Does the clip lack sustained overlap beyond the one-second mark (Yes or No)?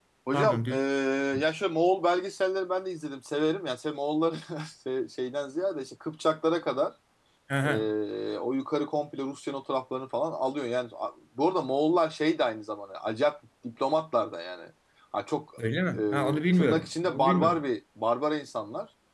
No